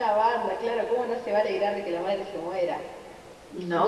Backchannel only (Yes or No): No